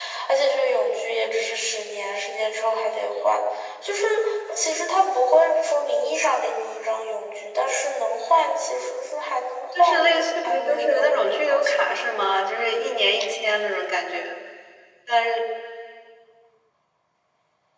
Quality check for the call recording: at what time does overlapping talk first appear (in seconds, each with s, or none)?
9.8 s